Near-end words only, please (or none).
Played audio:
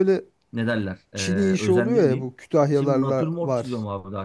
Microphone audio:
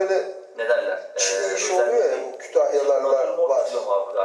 none